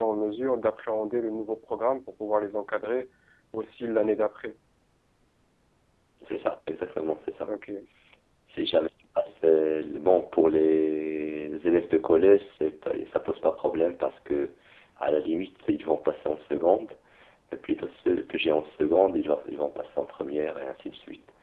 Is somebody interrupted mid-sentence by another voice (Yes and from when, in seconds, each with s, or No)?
No